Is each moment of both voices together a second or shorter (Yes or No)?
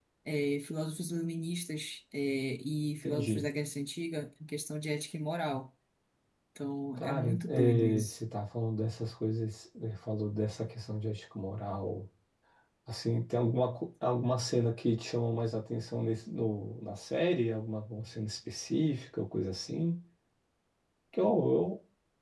No